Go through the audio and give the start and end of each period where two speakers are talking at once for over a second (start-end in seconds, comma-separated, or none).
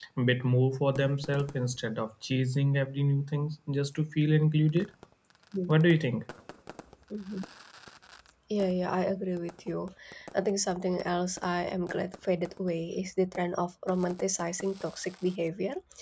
none